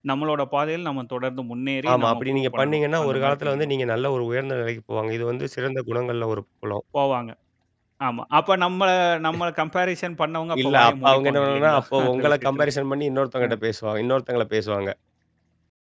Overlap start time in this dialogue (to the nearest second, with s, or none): 2 s